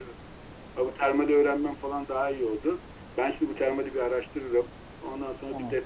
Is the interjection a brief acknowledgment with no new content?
Yes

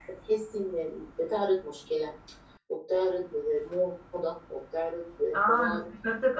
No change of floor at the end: No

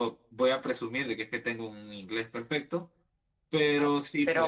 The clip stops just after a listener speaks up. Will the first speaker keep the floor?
No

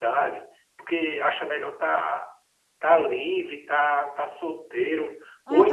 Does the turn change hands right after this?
Yes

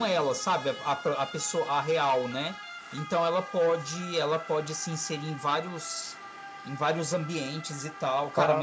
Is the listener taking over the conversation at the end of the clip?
No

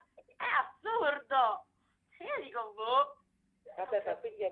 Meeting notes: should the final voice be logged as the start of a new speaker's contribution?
Yes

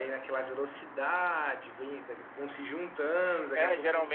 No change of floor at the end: No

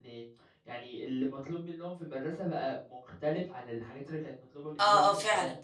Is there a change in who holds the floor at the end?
Yes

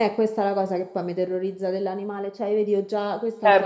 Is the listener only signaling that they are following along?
Yes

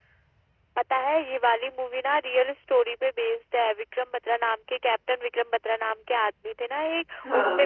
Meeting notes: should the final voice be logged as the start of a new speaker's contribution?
No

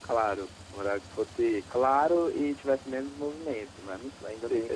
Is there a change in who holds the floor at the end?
Yes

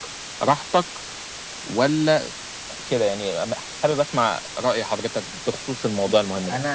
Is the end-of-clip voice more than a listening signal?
Yes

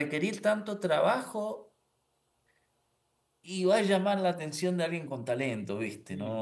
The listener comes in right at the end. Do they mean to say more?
Yes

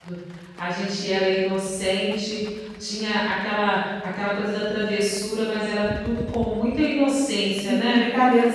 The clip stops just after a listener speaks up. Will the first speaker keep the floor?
No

